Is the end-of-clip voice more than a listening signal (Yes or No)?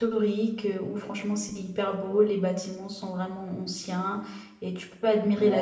Yes